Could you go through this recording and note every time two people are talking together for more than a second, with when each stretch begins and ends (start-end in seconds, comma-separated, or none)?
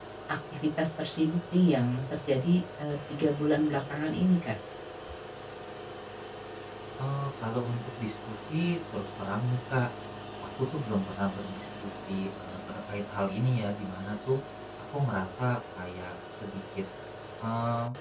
none